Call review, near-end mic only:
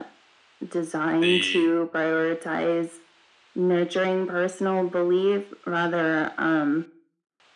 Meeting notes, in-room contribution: present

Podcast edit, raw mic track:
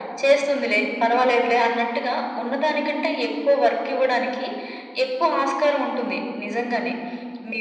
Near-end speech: none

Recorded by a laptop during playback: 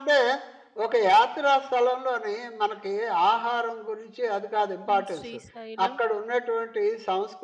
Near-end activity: present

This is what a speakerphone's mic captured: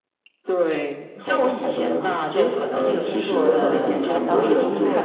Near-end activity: present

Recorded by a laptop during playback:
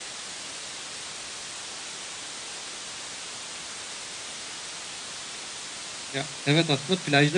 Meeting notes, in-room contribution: present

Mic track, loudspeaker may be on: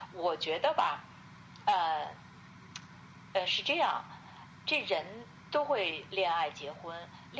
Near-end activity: none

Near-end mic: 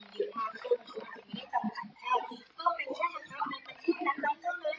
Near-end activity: none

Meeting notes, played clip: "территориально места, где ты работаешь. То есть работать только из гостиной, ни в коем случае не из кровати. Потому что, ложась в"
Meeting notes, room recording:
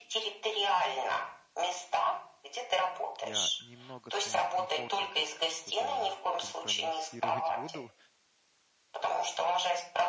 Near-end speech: present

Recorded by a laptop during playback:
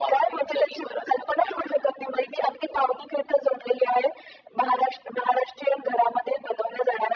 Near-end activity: none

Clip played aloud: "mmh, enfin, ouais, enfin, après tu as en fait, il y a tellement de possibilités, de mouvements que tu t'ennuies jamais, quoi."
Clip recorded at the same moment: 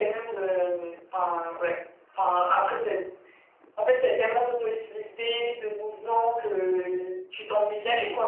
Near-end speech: none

